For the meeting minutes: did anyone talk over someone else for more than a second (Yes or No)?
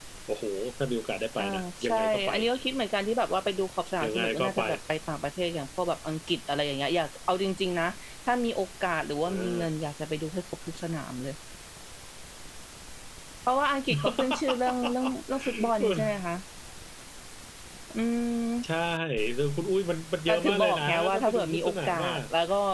Yes